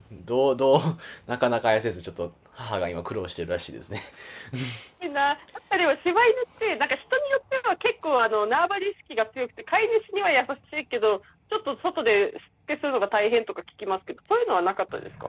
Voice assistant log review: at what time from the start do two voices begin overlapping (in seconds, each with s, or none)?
none